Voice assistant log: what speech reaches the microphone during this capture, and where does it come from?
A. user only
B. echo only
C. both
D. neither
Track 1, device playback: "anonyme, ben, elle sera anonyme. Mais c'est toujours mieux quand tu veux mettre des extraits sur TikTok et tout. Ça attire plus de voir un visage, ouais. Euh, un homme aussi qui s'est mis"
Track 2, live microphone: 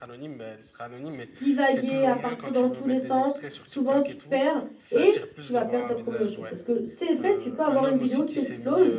C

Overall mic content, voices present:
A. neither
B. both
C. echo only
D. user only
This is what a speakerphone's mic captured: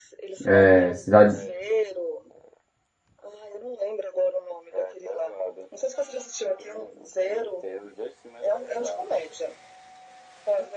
B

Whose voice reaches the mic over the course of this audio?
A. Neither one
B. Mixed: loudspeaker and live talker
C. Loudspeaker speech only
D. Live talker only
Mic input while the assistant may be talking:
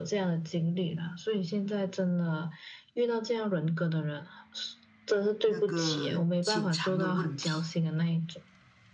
B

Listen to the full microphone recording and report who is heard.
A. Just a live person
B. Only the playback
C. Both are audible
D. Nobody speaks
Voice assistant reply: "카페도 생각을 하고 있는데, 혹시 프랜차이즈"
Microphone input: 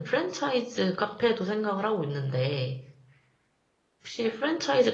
B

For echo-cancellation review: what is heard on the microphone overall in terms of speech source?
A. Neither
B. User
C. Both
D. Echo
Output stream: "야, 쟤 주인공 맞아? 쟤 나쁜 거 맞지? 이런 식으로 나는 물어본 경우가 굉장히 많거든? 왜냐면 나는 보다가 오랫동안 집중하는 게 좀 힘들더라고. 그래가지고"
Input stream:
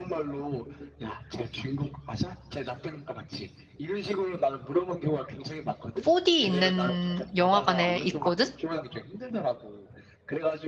C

